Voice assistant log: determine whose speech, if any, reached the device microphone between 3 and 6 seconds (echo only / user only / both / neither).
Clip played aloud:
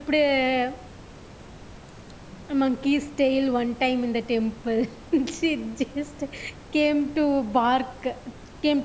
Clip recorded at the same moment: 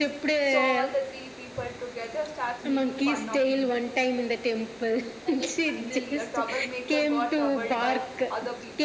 both